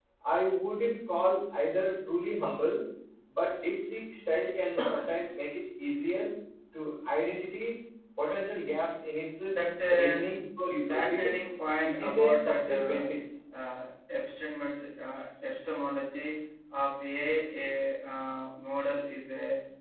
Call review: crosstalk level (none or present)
present